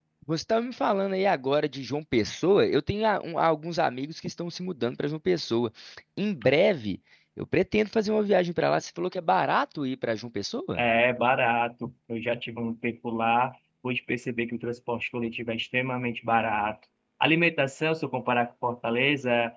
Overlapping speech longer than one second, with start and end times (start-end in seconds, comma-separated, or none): none